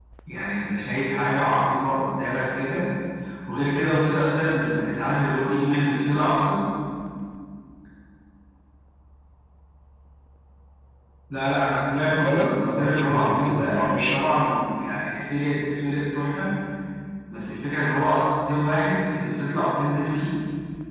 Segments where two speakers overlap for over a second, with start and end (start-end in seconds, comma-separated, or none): 12.0-14.2